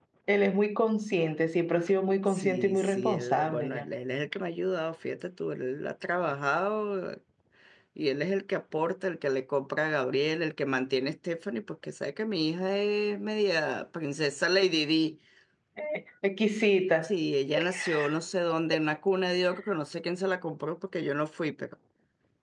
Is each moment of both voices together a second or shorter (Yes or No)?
No